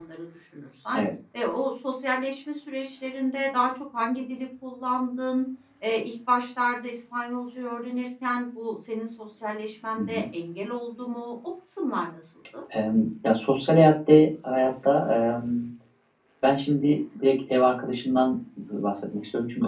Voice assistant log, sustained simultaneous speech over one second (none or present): none